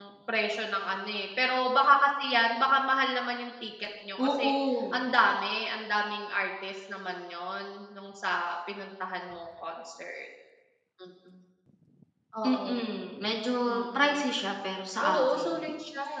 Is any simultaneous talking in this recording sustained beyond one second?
No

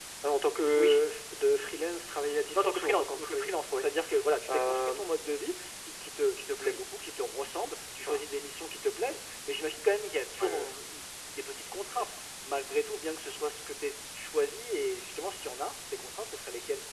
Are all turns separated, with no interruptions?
No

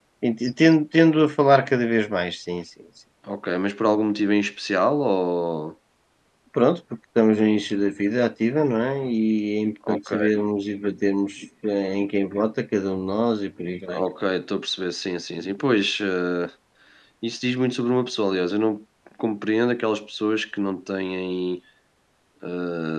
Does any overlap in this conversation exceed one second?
No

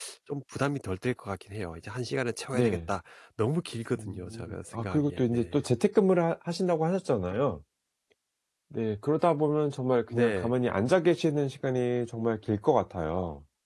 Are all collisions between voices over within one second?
No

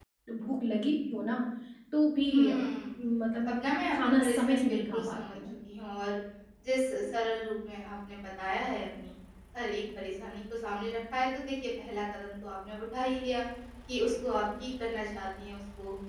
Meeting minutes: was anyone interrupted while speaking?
Yes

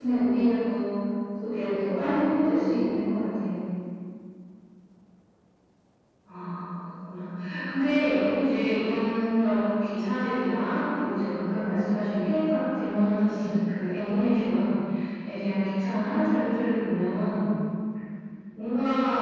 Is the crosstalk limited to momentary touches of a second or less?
Yes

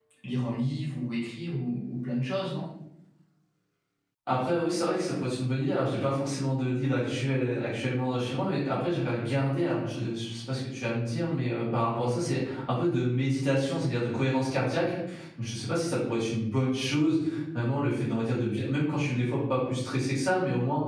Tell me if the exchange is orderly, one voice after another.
Yes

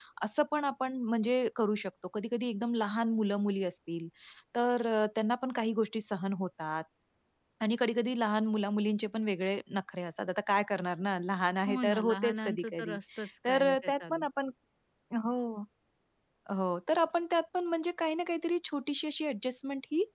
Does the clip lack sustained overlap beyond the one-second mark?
No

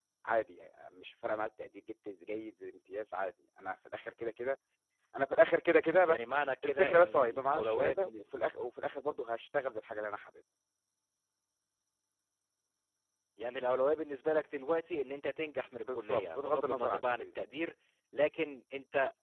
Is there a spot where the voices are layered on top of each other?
Yes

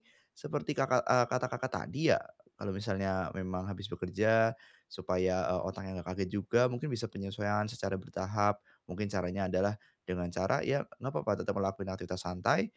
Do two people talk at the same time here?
No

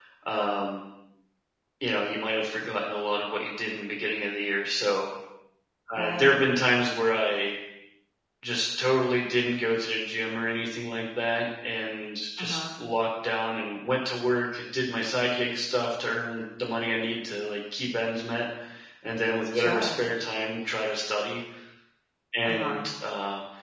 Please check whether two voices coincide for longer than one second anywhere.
No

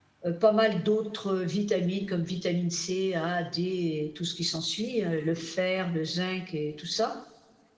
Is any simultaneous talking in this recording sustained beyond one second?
No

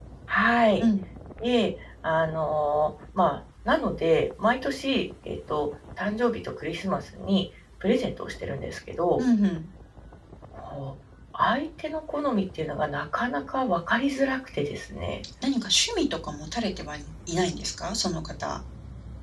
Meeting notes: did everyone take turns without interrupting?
Yes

